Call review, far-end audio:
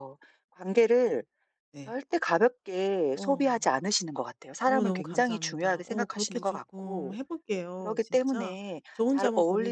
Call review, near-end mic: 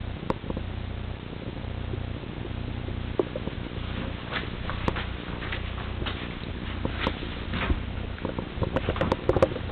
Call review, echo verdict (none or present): none